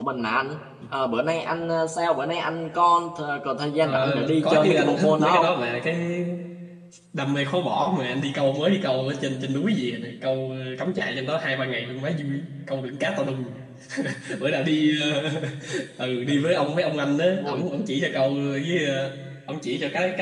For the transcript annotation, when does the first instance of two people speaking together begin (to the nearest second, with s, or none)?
4 s